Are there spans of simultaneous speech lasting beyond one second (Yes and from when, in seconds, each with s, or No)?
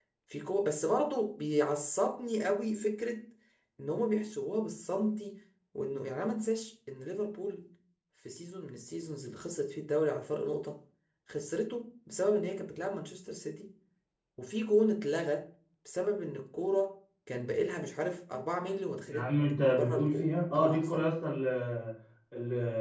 Yes, from 19.1 s